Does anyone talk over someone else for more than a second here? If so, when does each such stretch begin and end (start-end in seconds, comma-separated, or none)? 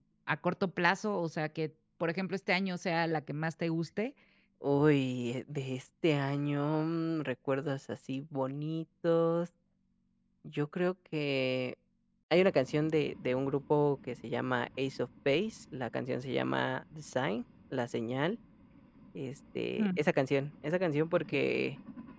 none